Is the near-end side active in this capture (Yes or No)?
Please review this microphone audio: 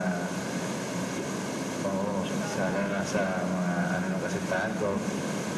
Yes